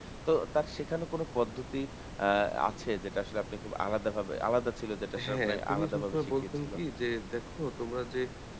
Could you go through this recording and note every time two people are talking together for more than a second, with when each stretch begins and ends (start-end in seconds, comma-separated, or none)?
5.3-6.7